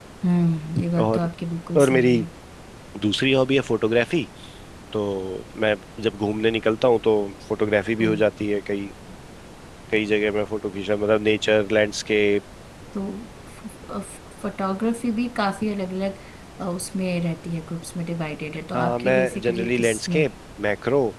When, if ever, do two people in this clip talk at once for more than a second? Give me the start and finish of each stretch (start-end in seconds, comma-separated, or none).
18.7-20.2